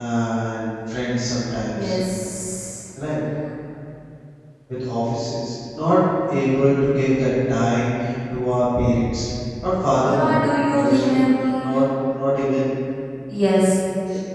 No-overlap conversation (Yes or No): No